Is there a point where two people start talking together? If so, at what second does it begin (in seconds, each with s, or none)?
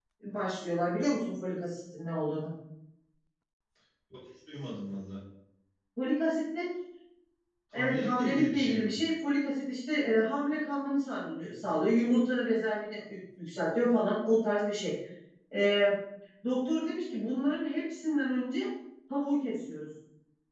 7.7 s